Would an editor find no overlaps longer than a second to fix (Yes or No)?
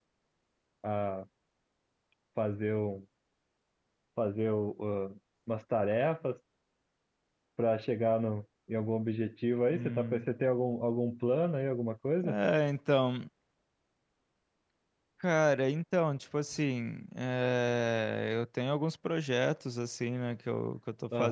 Yes